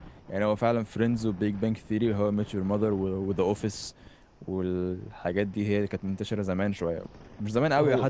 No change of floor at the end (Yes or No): Yes